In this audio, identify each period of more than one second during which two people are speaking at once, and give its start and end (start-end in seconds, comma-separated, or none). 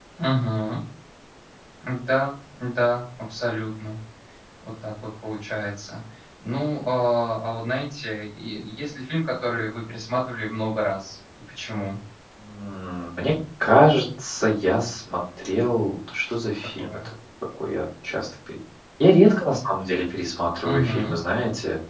none